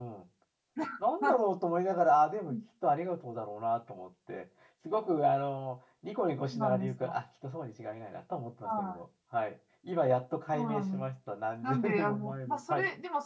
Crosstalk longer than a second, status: present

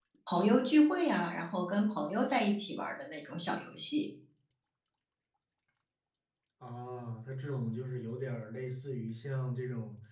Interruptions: none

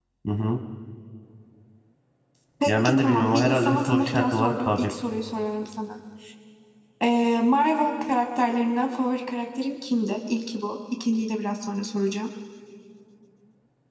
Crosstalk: present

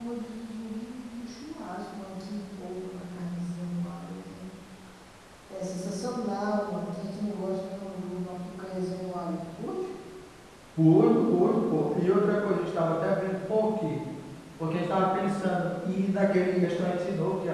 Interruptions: none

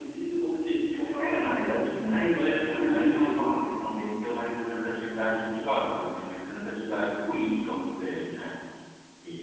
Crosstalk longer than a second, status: present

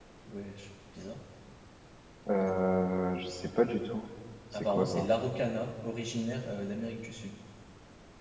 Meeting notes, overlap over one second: none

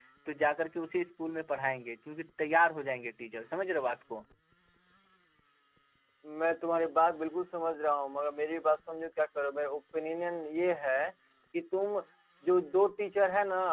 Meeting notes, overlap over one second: none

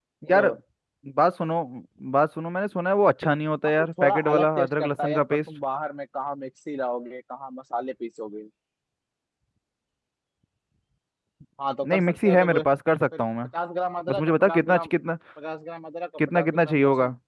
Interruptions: present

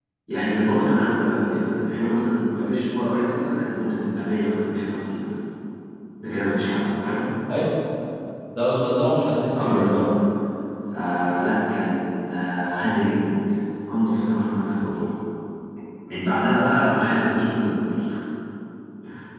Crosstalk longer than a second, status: none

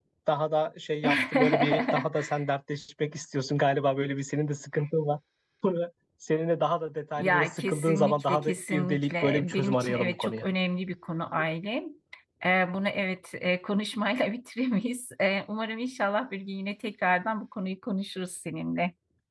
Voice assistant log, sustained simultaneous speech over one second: present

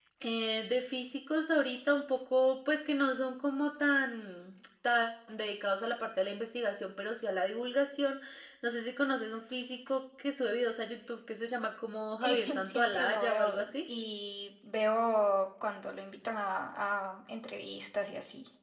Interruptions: present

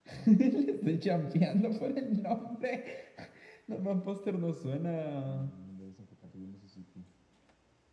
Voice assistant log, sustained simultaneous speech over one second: none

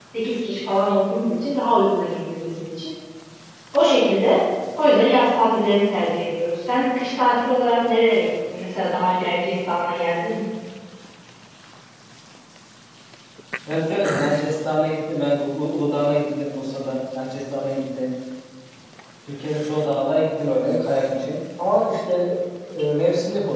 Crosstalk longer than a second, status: none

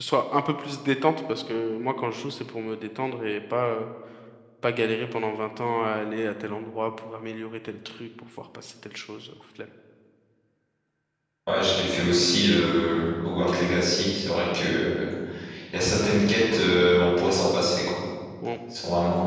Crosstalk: none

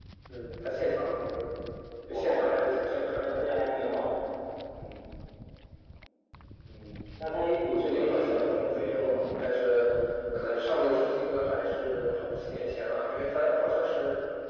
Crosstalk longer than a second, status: present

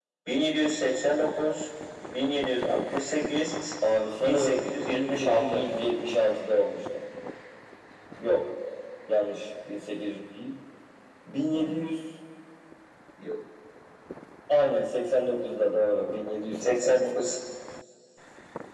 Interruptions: present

